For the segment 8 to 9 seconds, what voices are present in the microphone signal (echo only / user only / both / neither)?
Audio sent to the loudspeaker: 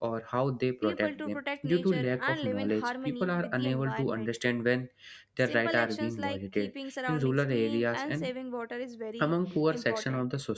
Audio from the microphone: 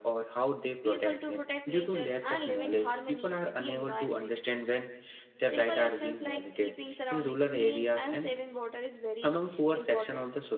echo only